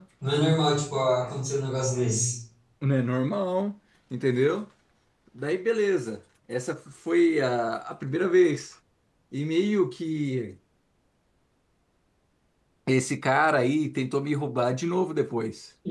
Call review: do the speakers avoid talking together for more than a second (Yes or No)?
Yes